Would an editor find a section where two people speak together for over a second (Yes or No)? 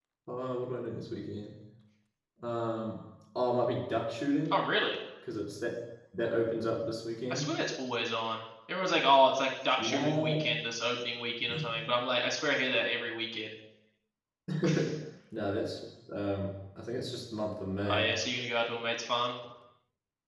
No